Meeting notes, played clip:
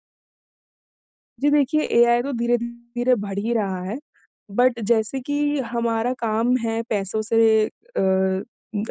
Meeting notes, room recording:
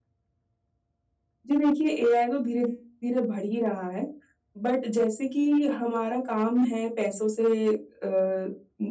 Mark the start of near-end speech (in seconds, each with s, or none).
none